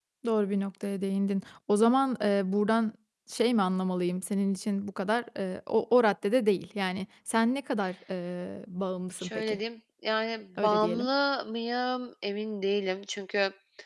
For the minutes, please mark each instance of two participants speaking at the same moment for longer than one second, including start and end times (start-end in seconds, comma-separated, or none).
none